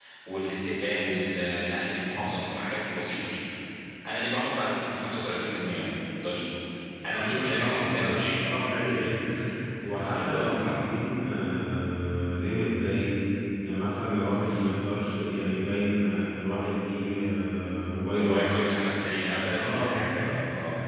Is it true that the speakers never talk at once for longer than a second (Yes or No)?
No